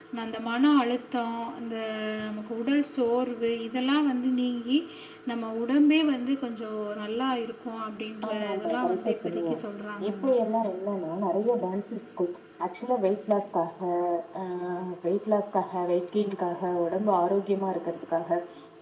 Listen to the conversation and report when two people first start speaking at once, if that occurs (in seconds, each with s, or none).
8.3 s